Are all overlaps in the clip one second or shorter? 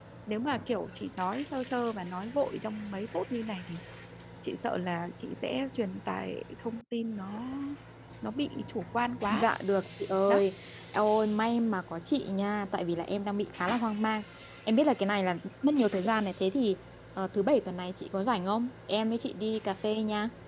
Yes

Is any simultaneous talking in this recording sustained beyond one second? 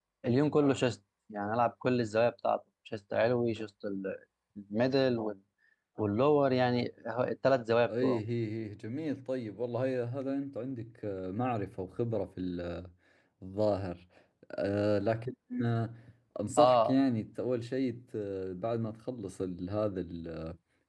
No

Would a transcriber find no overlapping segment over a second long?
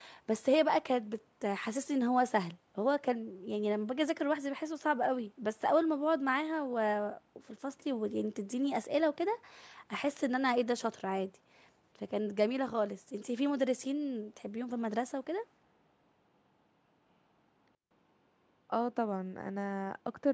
Yes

